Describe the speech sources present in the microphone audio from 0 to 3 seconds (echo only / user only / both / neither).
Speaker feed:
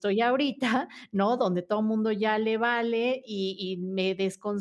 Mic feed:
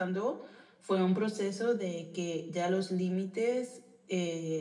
user only